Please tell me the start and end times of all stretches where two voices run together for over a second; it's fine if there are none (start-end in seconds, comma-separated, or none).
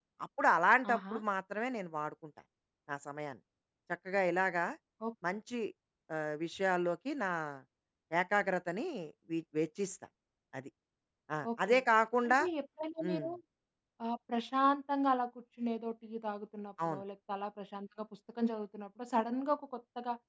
none